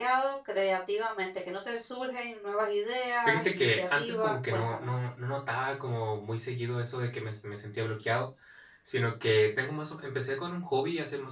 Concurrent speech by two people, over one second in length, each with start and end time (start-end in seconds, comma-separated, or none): 3.2-4.9